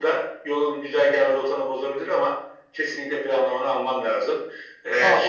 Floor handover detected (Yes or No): Yes